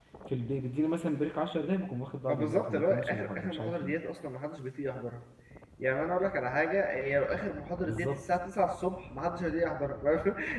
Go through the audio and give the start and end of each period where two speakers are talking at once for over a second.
2.3-3.9

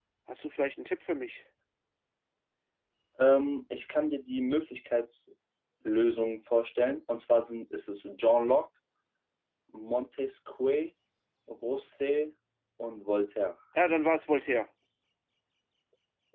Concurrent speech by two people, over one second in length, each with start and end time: none

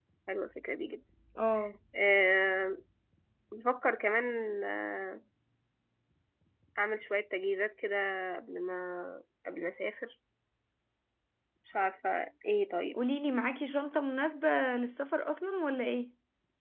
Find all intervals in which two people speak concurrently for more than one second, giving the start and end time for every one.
none

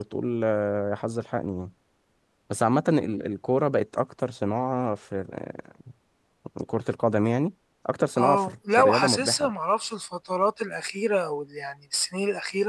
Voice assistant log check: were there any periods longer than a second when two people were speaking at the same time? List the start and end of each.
8.2-9.5

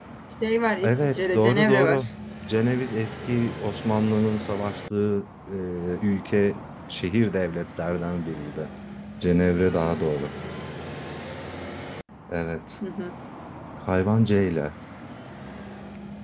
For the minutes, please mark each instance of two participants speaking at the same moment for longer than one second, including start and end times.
0.8-2.0

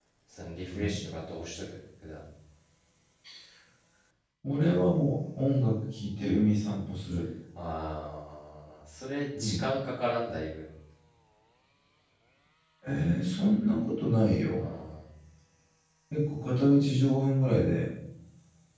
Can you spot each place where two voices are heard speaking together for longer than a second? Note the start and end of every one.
none

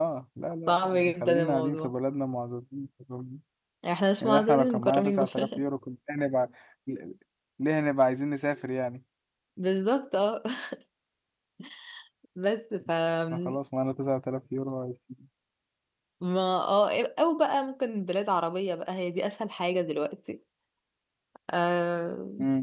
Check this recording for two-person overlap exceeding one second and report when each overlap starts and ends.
0.7-1.9, 4.2-5.6

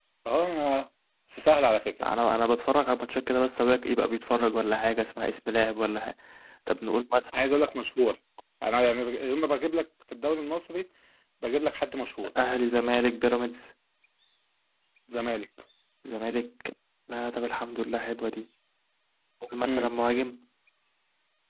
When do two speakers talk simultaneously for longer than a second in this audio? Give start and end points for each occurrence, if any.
none

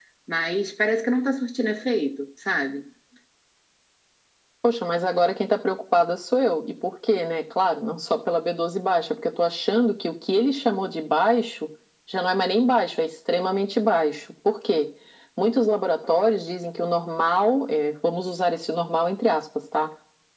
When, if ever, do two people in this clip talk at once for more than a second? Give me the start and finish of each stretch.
none

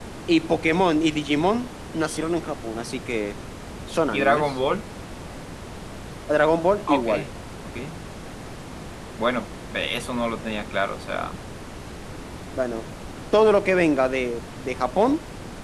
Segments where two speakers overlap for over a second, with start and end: none

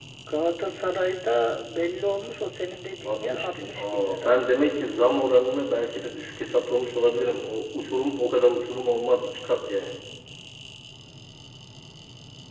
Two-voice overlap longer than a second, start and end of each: 3.0-4.4

